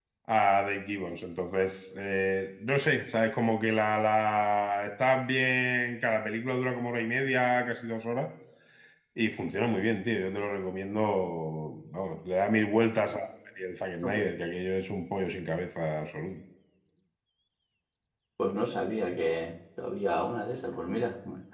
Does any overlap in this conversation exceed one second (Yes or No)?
No